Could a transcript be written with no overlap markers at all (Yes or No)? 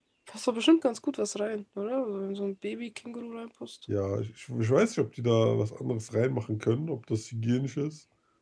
Yes